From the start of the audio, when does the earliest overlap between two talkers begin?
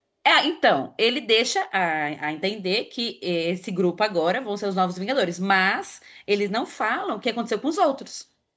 none

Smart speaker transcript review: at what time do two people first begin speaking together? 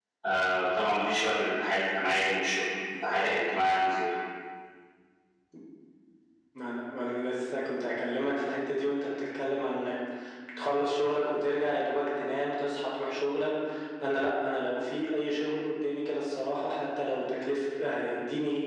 none

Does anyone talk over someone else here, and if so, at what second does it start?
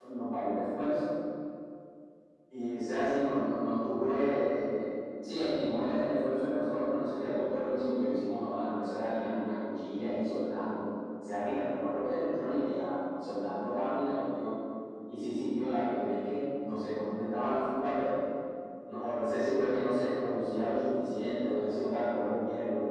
none

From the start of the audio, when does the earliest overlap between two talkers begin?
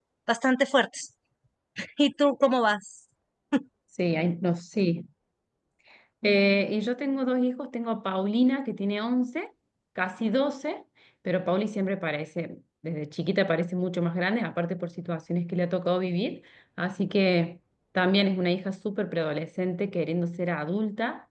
none

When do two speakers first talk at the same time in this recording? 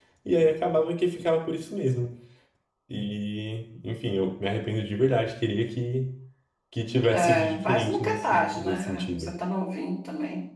7 s

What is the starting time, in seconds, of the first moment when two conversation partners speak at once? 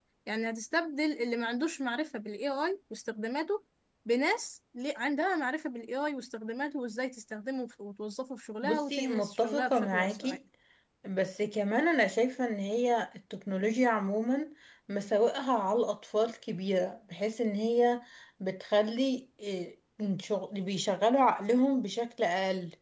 9 s

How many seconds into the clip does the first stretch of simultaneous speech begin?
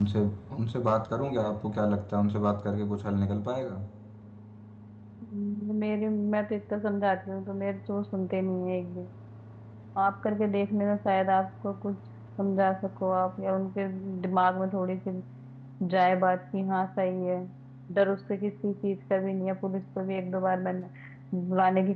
none

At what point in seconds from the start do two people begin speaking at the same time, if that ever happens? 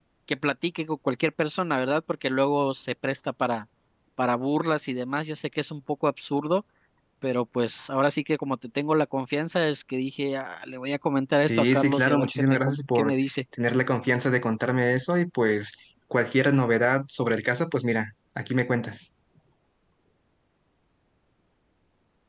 11 s

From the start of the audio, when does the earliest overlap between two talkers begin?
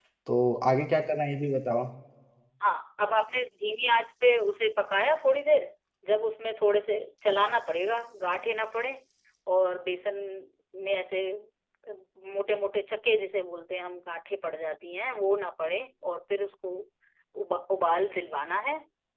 none

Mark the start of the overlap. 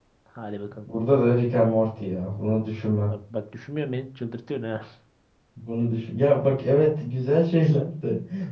none

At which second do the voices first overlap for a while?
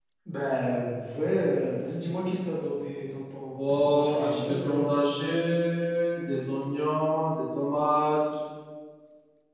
4 s

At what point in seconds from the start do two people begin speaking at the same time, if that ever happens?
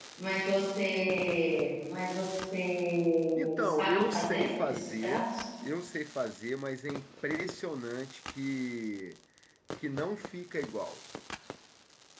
3 s

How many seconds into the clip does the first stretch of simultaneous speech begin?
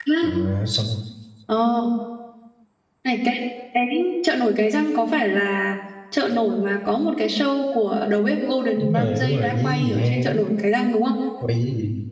9 s

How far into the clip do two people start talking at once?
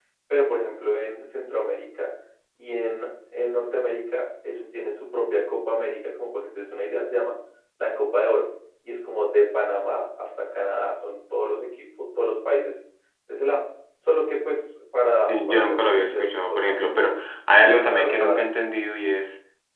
15 s

